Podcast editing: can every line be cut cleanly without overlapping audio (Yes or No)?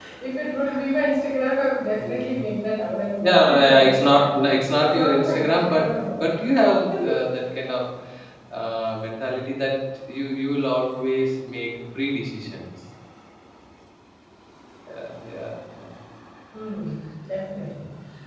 No